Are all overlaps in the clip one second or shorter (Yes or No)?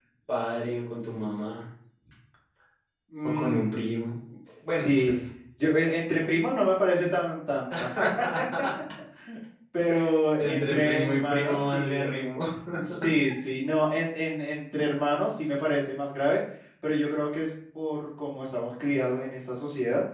No